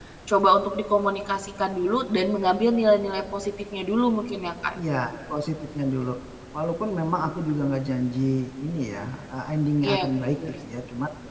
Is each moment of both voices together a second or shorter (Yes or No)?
Yes